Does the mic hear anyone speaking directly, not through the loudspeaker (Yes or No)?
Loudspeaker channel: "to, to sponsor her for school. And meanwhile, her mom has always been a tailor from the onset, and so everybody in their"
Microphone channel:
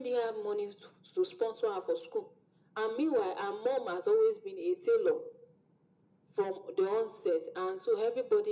No